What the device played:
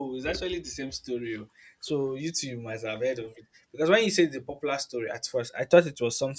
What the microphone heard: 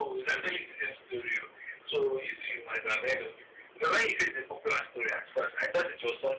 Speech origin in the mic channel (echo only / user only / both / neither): echo only